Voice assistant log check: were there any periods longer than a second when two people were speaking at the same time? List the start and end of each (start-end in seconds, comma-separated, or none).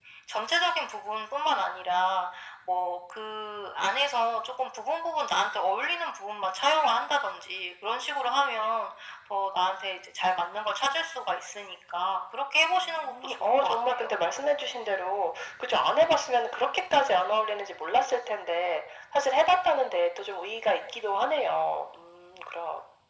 12.7-14.1